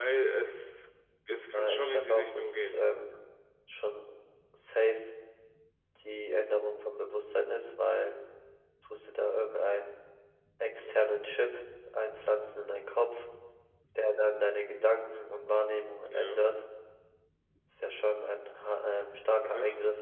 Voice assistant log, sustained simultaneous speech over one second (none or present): present